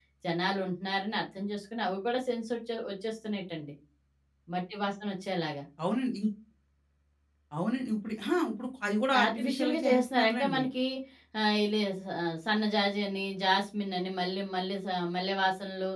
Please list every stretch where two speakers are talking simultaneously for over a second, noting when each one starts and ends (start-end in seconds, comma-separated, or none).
9.2-10.6